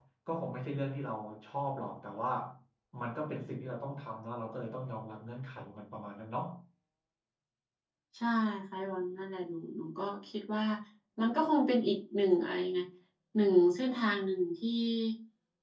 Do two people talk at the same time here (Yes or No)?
No